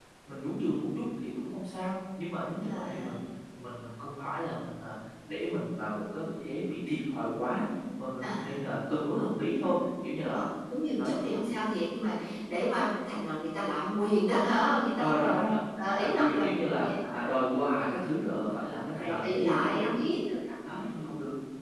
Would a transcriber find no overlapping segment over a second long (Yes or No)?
No